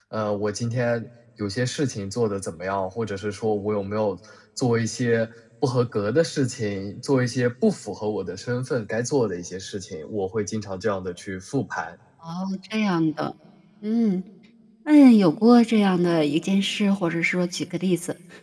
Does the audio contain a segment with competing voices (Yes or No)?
No